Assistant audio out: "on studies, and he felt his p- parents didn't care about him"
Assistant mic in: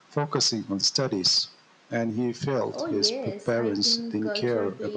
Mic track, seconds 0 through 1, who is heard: echo only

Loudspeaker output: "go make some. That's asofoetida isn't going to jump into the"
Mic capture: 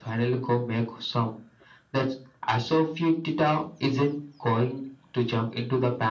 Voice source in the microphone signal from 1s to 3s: echo only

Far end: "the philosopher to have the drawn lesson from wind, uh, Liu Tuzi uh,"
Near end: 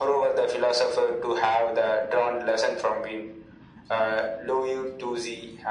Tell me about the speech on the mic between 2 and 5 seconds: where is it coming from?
echo only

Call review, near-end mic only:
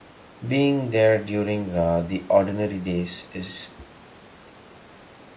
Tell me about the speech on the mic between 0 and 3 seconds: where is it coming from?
user only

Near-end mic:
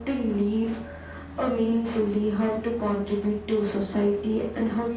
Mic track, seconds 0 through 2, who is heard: echo only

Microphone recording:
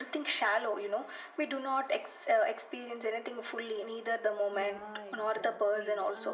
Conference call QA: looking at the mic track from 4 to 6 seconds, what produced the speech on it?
both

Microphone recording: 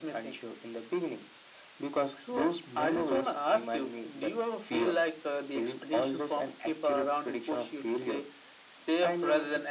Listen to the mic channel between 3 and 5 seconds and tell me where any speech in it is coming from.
echo only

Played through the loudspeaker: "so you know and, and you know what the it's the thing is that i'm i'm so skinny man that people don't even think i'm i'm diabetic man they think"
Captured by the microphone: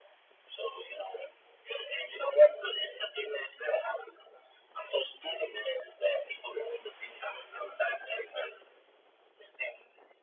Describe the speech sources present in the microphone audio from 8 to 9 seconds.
echo only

